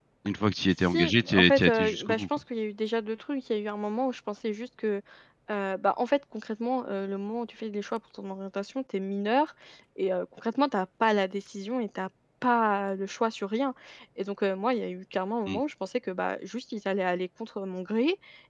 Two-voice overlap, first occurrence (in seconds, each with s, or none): 0.9 s